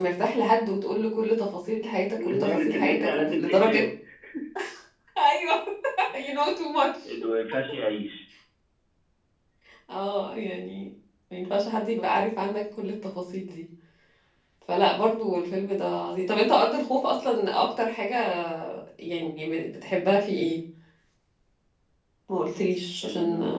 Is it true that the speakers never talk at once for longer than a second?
No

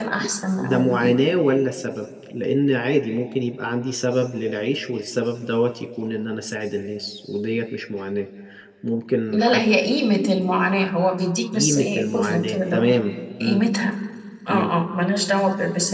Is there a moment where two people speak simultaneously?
Yes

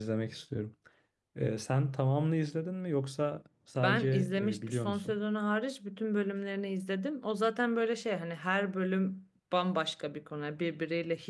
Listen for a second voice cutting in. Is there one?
Yes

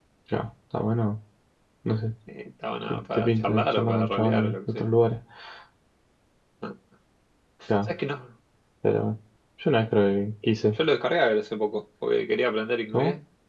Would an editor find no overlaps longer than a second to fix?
No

